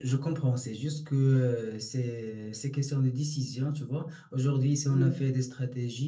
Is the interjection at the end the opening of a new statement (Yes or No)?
No